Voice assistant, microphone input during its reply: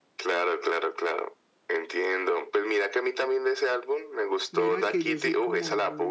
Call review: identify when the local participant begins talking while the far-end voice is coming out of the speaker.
4.5 s

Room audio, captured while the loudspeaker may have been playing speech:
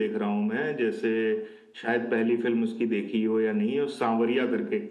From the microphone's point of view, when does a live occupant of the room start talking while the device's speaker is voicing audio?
none

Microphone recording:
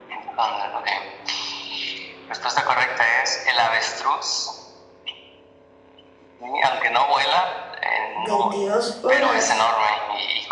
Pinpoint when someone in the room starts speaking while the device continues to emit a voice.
8.2 s

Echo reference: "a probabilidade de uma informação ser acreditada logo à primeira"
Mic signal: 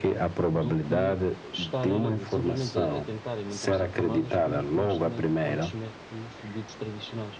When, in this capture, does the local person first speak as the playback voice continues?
0.5 s

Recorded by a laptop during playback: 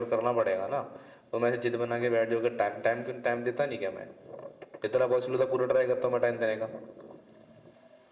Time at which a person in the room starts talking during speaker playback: none

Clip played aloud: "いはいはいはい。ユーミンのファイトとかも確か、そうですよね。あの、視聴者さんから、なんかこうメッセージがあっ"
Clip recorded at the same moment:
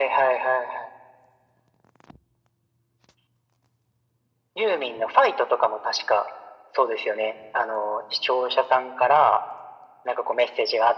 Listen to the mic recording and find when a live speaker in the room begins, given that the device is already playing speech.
none

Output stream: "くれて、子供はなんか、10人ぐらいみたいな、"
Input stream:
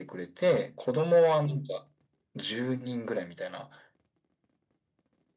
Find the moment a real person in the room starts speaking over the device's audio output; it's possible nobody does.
none

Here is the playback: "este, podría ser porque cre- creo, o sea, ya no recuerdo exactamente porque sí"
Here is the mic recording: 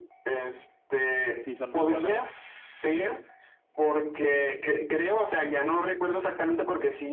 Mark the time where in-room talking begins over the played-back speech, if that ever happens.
1.4 s

